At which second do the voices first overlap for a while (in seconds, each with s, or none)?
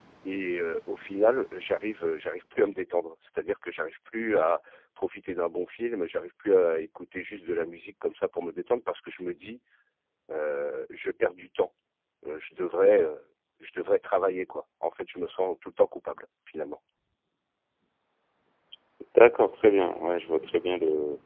none